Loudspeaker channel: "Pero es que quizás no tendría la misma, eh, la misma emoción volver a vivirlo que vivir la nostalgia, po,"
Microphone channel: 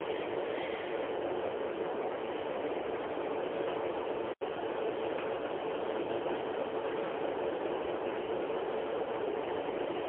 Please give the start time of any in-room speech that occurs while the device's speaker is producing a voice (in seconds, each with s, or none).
none